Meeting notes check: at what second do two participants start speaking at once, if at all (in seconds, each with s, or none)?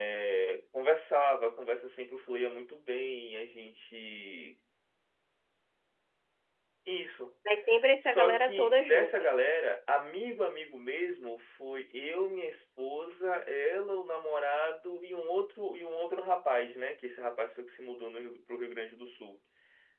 8.0 s